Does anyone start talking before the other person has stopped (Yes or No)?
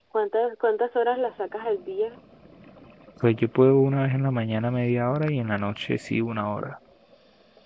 No